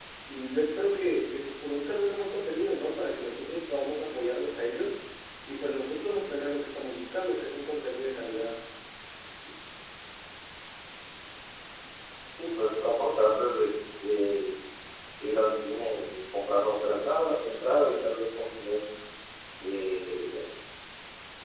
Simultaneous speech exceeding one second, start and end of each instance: none

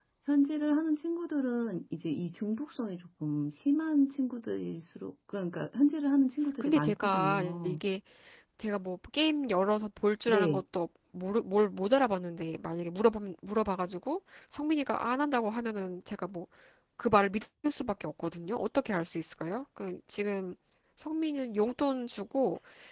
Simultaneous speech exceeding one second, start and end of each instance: 6.6-7.8

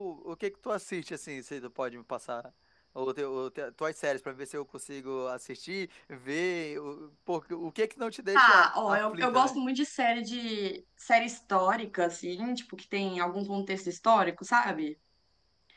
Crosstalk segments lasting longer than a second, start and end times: 8.3-9.6

